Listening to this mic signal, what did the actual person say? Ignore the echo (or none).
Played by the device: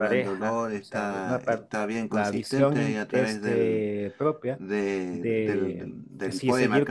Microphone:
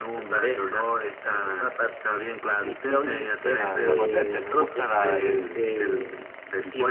está, está potente, me gusta la- el,